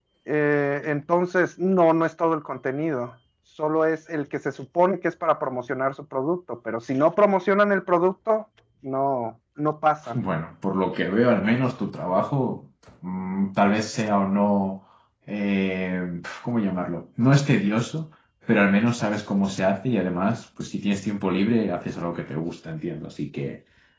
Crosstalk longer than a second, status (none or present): none